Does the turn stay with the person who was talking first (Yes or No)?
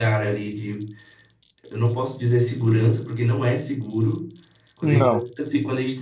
Yes